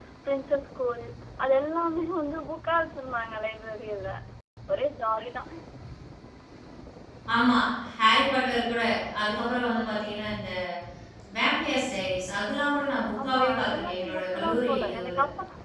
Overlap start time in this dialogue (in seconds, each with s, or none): 13.1 s